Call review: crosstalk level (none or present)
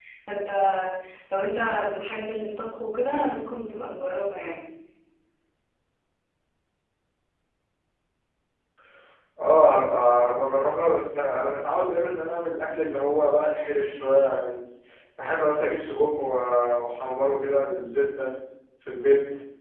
none